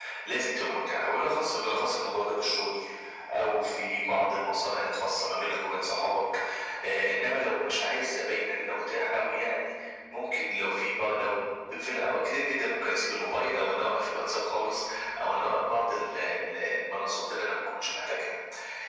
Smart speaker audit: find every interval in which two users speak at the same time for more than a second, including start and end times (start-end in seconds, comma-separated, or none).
none